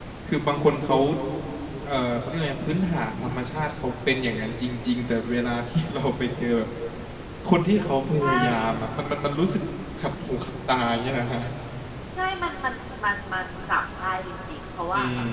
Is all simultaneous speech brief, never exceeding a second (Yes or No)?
Yes